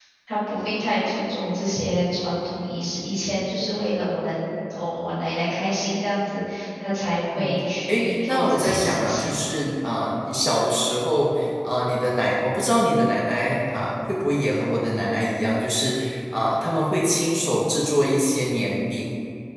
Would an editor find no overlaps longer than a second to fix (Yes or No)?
No